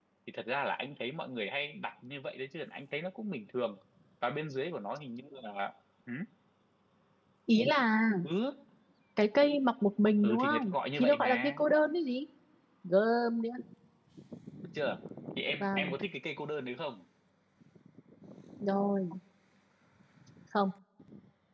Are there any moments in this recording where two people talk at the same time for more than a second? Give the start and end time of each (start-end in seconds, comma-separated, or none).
10.2-11.6